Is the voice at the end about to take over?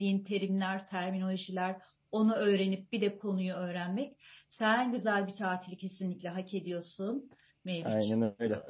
Yes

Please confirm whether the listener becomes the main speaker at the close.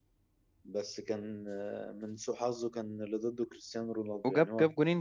Yes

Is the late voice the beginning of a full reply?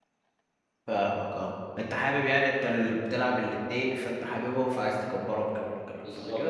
Yes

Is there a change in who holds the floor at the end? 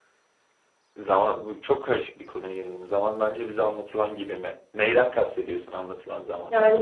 Yes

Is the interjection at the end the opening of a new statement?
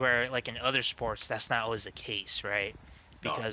No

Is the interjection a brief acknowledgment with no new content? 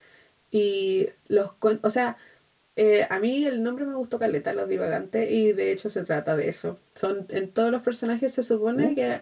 Yes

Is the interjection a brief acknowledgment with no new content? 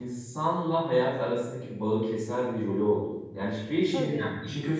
Yes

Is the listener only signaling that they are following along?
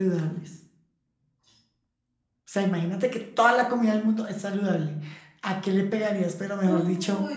No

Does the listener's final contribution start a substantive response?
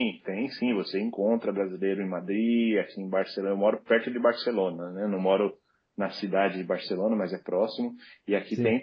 No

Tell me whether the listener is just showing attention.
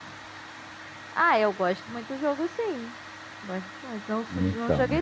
Yes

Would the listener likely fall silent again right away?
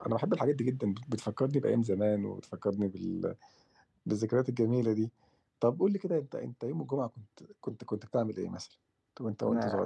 No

